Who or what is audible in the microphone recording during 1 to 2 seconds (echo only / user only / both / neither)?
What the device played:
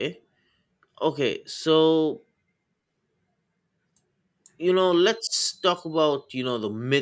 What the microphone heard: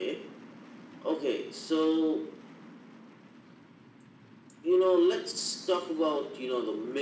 echo only